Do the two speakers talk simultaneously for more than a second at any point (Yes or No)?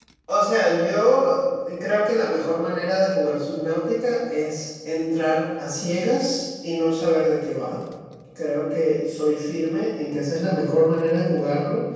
No